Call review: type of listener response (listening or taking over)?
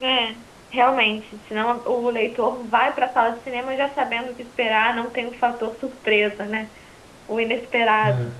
listening